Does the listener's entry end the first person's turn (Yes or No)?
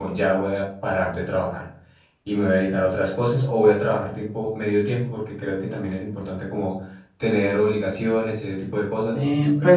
Yes